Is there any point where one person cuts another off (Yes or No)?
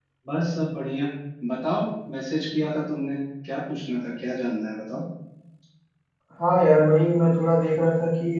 No